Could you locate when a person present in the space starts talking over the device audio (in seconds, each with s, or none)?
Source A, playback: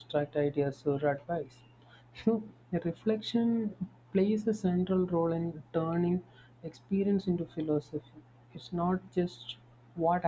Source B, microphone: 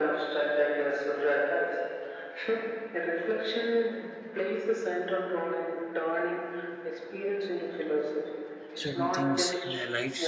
8.7 s